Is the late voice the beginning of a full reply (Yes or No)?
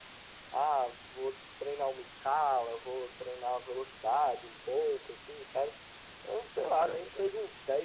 No